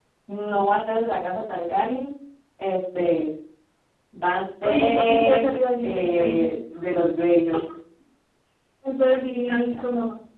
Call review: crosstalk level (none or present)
present